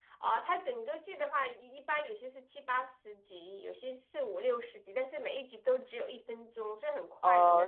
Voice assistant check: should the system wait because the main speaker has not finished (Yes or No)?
No